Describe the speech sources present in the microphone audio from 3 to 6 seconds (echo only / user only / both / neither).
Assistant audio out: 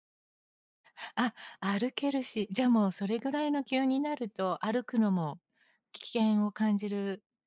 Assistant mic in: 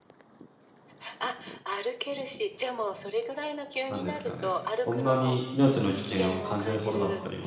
both